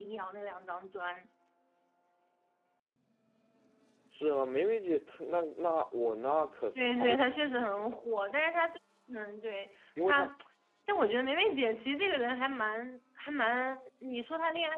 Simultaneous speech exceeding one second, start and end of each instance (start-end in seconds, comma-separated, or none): 6.8-8.2